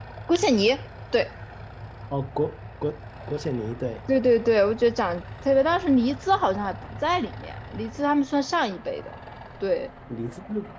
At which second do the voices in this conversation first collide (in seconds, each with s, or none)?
none